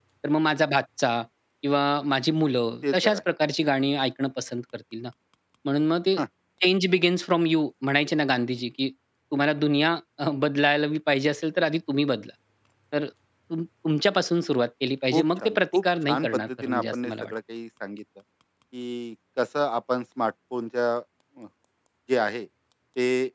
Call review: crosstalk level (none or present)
present